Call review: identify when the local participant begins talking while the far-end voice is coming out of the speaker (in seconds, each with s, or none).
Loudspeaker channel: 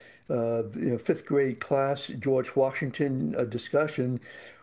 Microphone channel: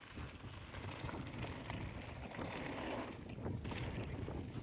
none